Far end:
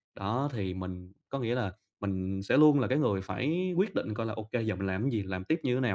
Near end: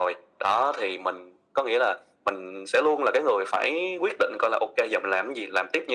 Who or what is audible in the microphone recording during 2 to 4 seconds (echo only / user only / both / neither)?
echo only